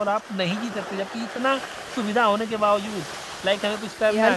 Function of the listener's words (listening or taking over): listening